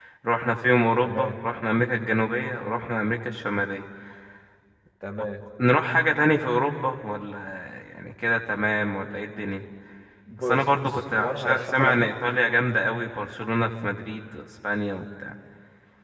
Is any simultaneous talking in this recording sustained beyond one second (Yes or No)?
Yes